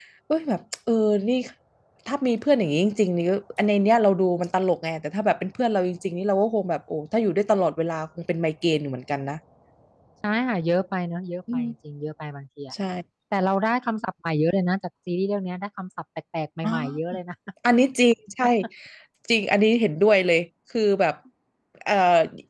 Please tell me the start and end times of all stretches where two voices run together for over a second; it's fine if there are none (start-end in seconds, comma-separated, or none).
none